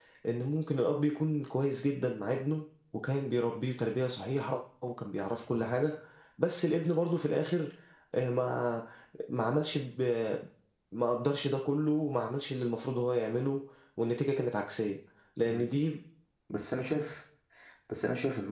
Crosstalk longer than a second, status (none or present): none